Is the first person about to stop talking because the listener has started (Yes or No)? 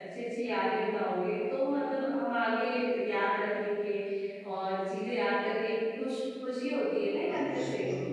Yes